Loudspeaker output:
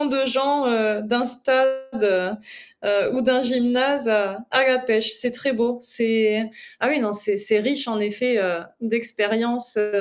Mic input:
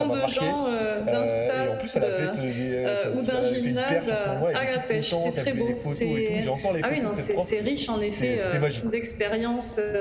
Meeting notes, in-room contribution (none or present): present